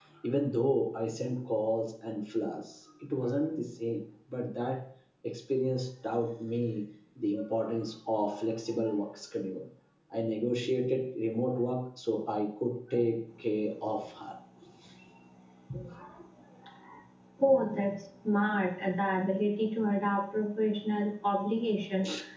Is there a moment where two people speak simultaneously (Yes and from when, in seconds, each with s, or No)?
No